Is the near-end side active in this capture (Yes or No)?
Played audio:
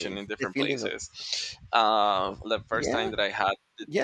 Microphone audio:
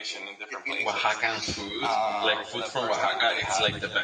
Yes